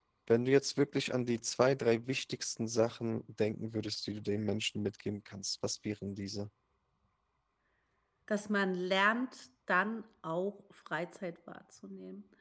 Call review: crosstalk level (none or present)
none